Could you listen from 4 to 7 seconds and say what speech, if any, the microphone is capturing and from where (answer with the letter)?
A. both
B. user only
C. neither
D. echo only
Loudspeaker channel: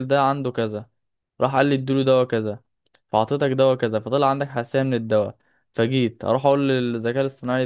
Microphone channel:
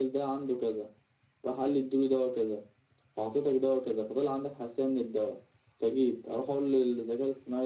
D